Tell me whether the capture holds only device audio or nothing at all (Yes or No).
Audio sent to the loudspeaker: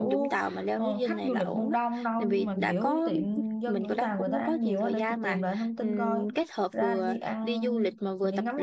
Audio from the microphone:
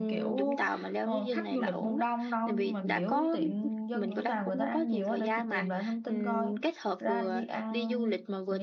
Yes